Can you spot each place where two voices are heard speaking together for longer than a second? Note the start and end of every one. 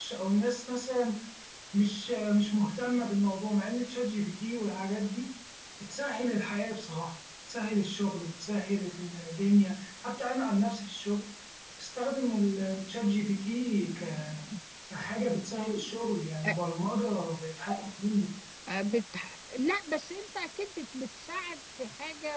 none

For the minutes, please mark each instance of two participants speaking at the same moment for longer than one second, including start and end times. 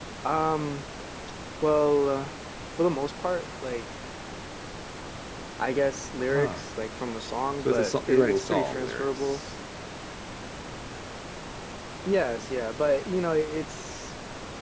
7.6-9.4

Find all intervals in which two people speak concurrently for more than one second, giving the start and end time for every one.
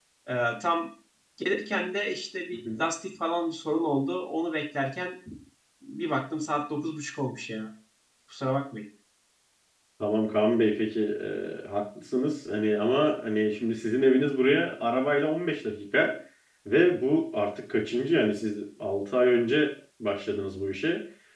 none

